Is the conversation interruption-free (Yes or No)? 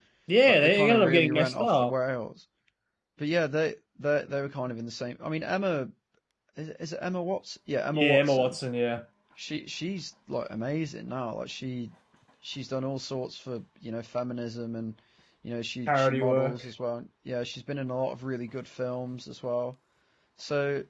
No